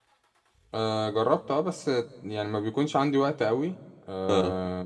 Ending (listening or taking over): listening